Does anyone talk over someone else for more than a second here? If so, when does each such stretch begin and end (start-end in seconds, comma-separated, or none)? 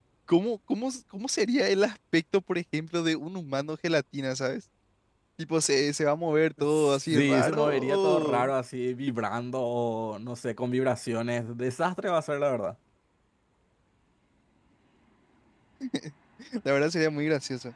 6.7-8.4